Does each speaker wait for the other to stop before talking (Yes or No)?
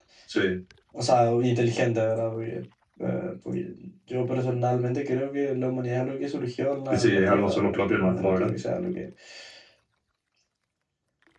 No